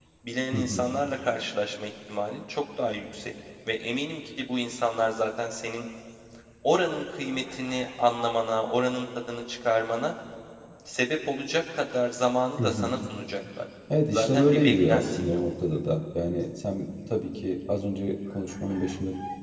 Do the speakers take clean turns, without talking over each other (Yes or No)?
No